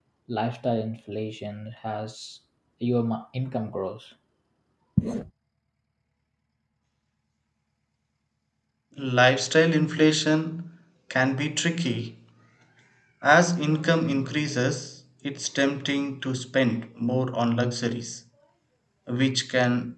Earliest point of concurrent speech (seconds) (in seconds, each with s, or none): none